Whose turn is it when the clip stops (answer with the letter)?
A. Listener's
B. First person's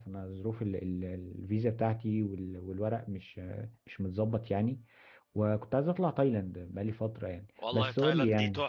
A